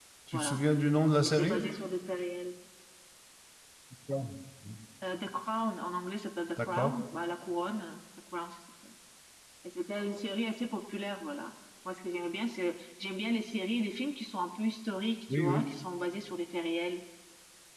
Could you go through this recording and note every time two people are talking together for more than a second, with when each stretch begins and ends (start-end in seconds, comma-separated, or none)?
none